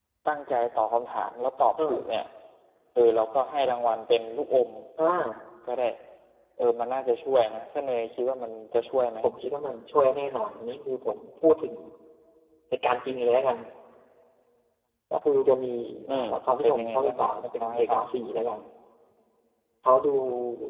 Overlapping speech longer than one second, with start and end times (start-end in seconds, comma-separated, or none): 16.1-18.0